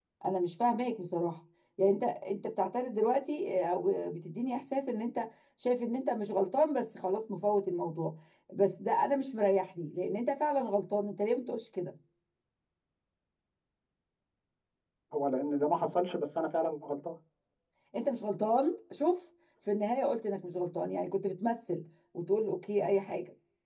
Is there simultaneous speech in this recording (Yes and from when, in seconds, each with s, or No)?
No